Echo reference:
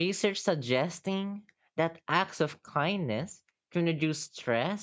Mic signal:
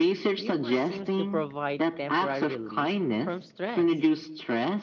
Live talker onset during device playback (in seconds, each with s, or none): 0.3 s